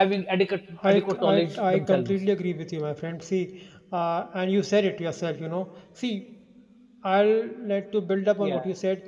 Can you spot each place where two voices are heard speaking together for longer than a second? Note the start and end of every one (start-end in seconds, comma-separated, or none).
0.9-2.1